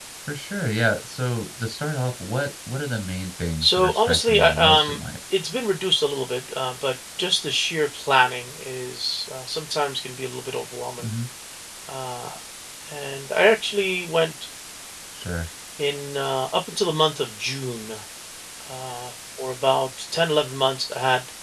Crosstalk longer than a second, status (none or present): present